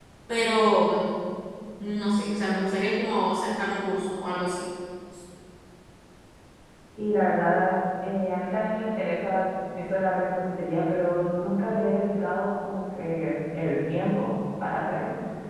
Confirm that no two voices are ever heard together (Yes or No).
Yes